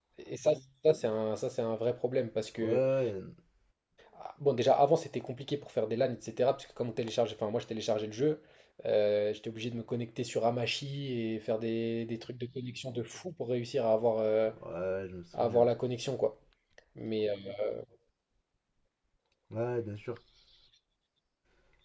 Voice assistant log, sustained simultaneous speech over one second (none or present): none